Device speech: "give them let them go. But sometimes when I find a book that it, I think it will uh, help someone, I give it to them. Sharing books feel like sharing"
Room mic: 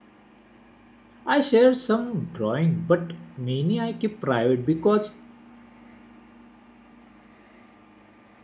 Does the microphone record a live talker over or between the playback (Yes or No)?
Yes